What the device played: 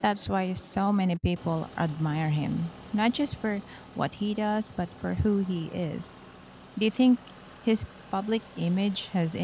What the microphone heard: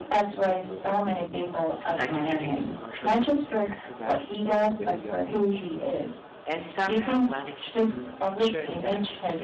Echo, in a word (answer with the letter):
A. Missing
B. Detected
B